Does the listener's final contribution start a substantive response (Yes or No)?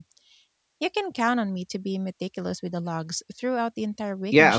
Yes